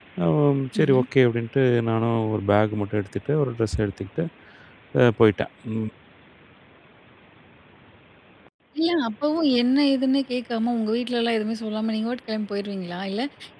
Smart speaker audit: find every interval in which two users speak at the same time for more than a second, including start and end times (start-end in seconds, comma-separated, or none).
none